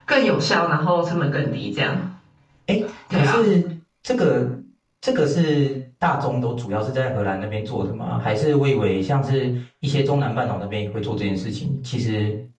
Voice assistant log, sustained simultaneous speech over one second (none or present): none